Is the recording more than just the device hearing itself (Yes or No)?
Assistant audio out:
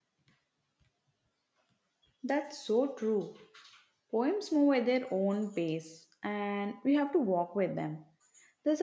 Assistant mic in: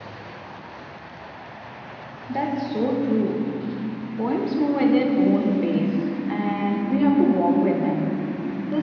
No